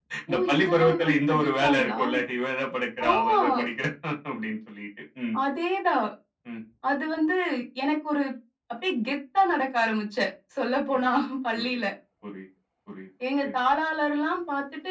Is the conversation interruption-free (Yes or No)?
No